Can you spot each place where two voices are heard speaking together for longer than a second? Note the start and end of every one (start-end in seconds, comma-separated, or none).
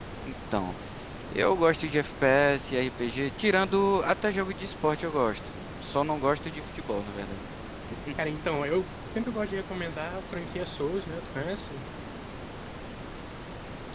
none